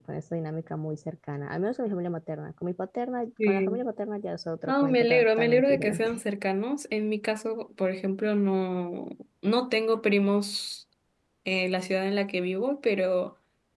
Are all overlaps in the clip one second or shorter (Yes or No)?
No